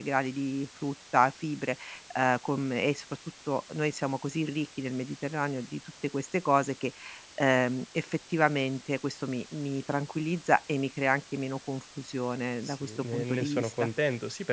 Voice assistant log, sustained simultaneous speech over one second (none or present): present